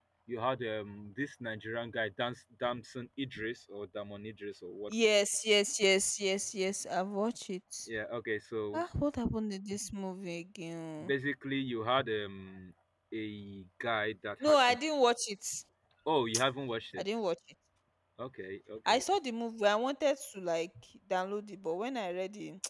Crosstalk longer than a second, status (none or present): none